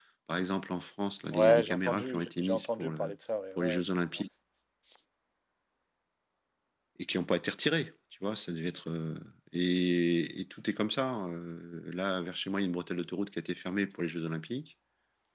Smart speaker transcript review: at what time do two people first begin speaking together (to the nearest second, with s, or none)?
1 s